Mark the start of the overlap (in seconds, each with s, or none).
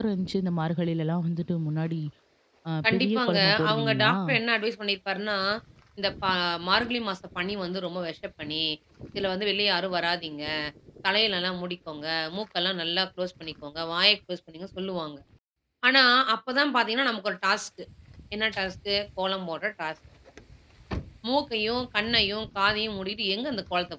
2.9 s